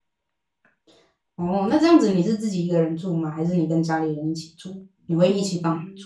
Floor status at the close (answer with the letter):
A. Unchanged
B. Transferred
B